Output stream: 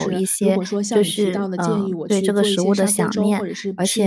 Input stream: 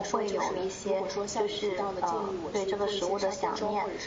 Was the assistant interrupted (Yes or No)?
No